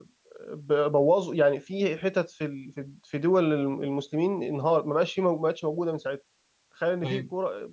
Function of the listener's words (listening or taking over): listening